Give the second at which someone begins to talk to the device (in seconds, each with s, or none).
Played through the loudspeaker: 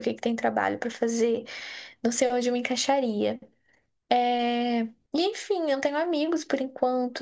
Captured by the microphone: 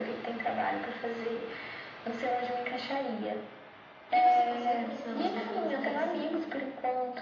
4.1 s